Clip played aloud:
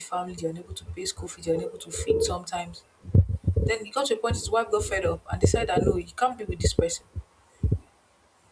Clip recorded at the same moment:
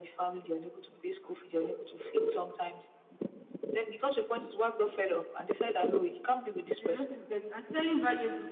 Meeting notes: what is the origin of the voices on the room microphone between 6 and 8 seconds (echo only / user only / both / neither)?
both